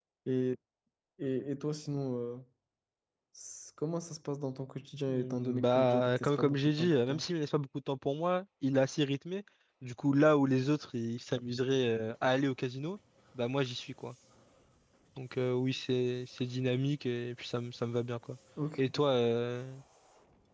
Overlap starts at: 5.1 s

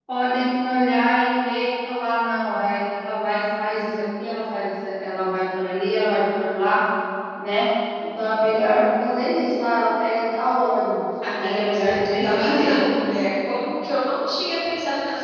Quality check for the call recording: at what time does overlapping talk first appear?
11.2 s

